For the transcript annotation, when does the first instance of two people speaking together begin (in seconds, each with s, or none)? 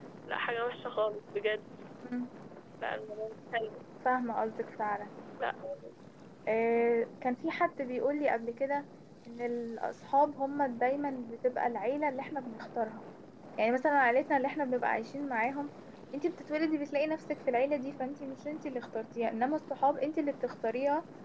none